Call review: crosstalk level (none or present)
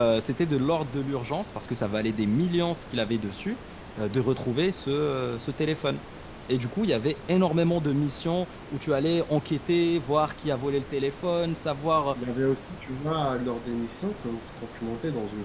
none